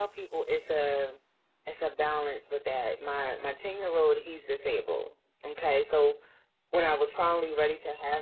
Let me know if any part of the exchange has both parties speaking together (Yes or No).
No